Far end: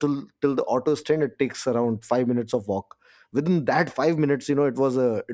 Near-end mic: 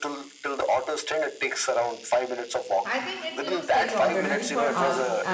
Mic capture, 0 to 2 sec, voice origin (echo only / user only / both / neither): echo only